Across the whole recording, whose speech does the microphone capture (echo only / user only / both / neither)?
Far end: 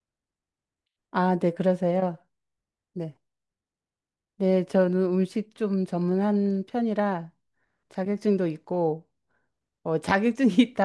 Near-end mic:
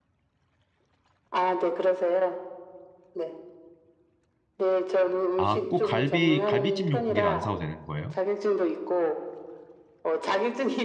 both